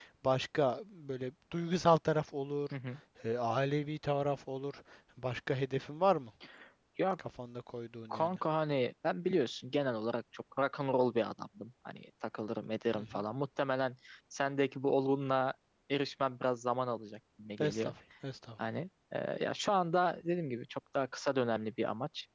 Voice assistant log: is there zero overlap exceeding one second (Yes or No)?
Yes